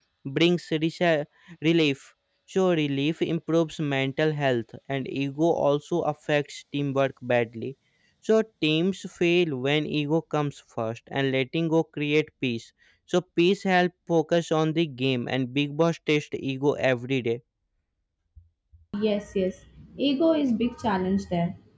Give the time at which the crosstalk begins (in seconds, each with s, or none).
none